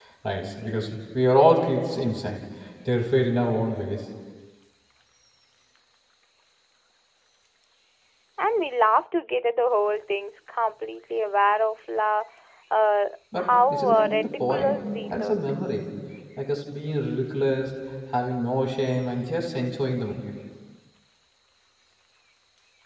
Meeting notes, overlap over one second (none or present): present